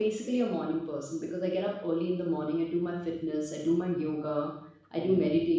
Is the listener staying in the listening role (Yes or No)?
Yes